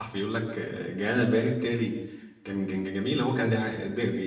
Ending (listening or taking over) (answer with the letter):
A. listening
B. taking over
A